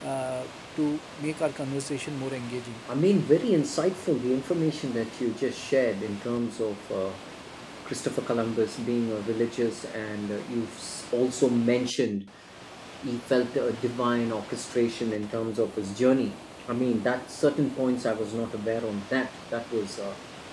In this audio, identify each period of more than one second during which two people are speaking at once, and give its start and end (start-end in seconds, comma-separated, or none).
none